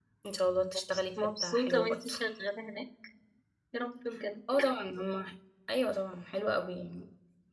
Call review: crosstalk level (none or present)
present